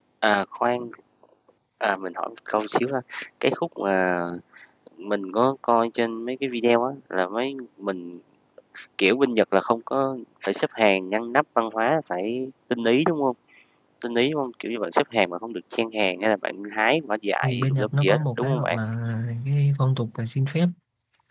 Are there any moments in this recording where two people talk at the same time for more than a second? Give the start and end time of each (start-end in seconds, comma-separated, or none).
17.4-18.8